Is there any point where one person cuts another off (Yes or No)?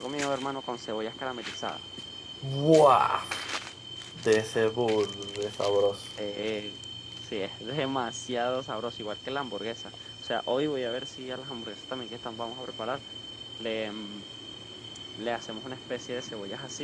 No